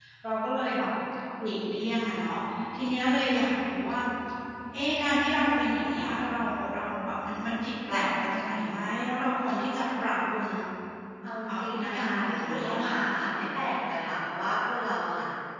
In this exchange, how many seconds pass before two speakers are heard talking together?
11 s

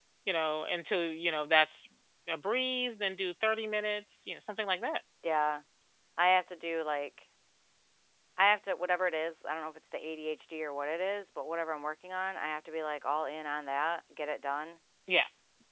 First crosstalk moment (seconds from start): none

